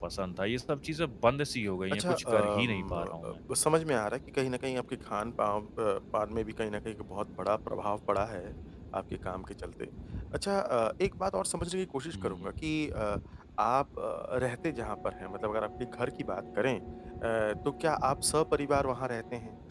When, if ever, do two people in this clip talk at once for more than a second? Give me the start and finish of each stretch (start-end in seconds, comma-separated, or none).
1.9-3.3